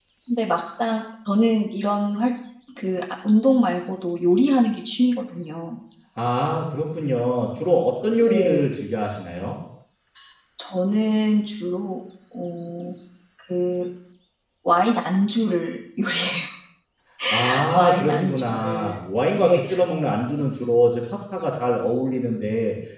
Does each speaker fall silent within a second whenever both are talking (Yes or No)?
No